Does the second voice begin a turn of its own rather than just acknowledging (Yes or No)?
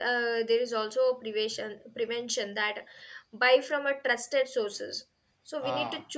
No